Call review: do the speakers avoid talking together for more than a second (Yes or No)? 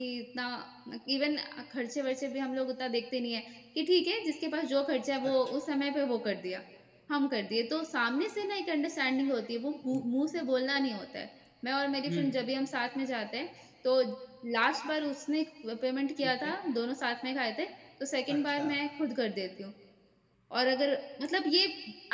Yes